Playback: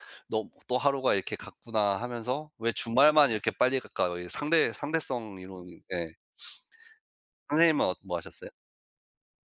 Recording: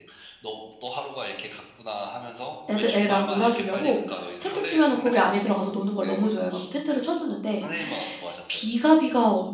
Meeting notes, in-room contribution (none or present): present